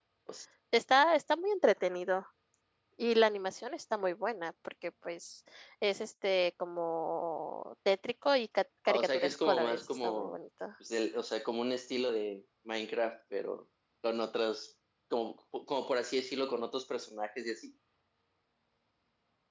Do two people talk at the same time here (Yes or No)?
Yes